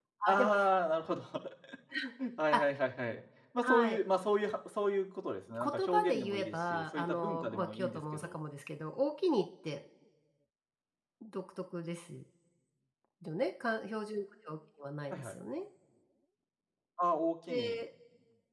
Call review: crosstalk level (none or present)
present